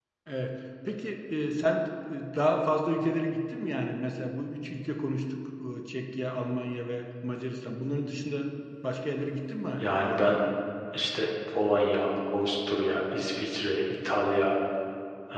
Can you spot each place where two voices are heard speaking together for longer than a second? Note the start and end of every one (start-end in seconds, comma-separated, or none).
none